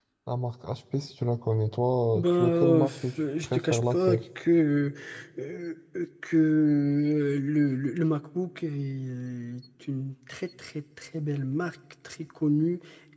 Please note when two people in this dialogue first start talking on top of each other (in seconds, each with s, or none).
2.1 s